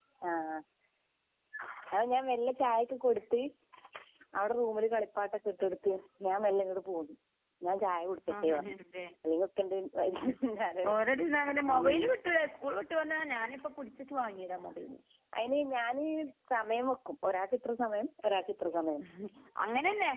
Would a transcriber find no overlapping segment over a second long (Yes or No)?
Yes